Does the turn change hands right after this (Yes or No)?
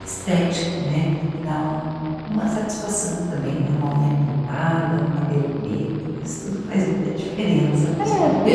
Yes